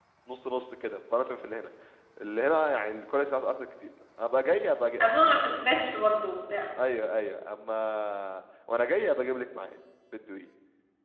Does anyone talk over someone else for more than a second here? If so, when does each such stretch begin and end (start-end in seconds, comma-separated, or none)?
none